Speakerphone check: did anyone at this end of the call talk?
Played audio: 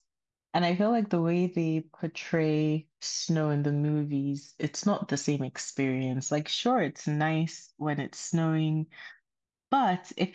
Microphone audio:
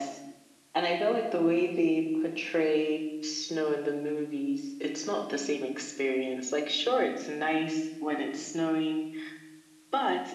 No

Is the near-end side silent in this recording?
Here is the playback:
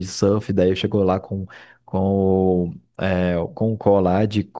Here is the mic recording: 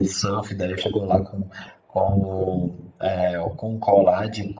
Yes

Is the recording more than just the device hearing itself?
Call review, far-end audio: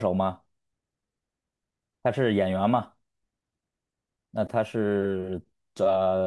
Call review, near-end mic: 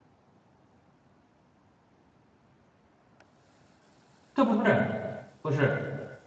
Yes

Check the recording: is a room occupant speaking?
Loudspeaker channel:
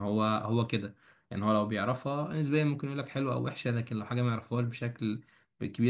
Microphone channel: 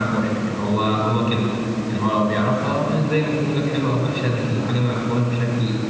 No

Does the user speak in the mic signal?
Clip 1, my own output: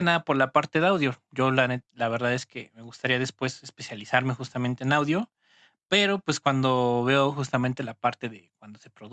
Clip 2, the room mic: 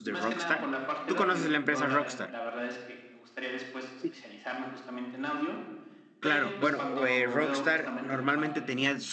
Yes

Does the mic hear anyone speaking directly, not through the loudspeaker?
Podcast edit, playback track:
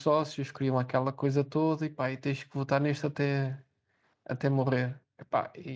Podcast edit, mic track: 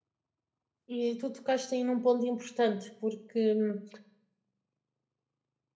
Yes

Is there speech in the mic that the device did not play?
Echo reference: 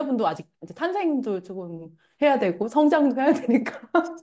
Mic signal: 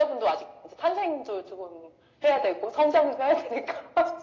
No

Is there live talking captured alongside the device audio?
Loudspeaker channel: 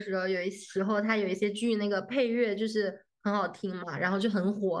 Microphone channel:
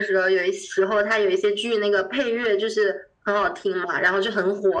No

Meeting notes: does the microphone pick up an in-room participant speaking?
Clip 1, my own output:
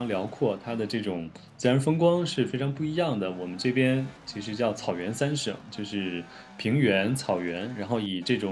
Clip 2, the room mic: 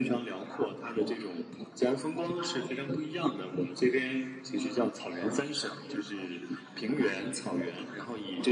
No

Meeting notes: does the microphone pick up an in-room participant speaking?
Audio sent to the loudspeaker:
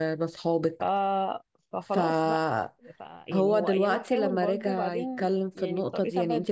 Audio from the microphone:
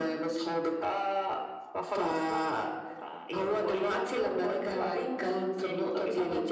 No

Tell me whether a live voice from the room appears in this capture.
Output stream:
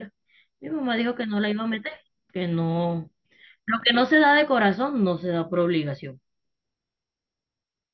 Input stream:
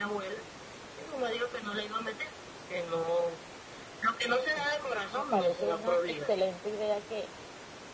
Yes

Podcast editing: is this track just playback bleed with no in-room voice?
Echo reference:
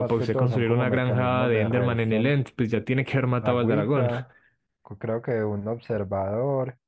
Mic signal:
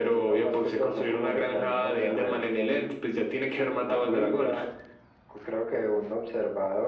Yes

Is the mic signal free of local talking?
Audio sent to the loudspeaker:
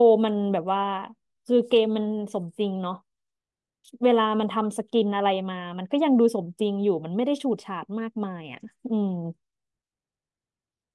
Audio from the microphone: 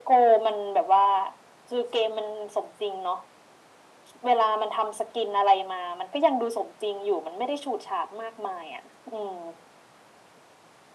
Yes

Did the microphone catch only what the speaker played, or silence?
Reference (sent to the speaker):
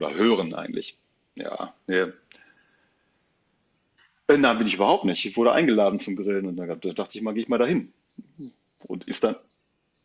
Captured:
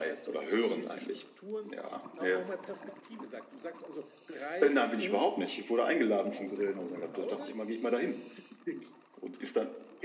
No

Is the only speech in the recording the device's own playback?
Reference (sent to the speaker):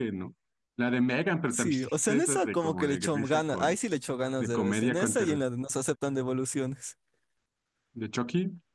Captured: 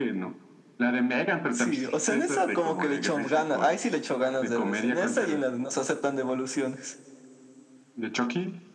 Yes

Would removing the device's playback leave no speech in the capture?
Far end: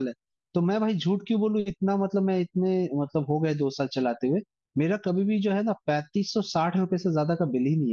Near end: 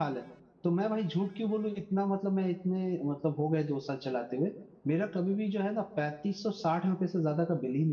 Yes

